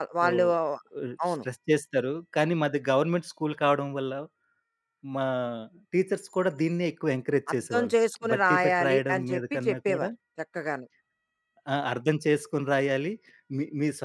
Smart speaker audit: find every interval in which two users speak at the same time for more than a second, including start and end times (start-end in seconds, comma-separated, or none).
8.3-10.1